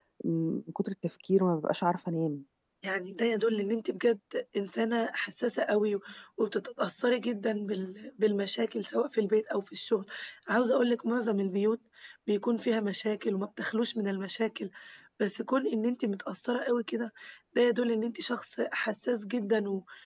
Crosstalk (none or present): none